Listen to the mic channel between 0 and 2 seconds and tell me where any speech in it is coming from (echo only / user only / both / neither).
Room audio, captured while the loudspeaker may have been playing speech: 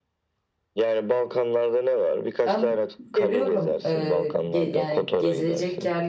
echo only